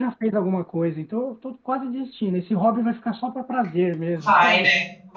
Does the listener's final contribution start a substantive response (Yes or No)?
Yes